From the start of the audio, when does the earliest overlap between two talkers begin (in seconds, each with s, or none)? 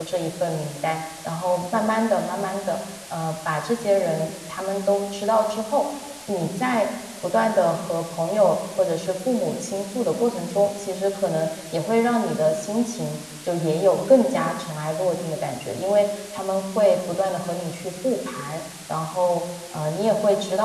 none